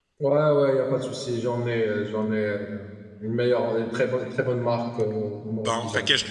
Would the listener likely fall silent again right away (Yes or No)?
No